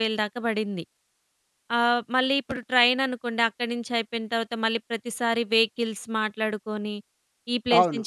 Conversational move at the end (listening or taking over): listening